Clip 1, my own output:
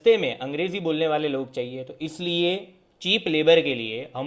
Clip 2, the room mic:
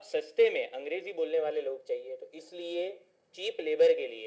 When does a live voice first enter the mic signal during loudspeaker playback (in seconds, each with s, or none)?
none